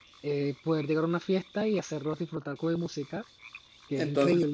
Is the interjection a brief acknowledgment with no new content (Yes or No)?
No